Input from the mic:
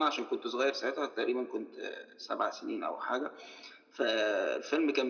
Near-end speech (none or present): none